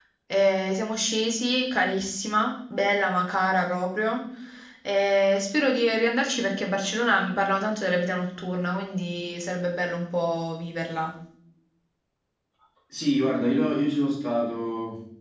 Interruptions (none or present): none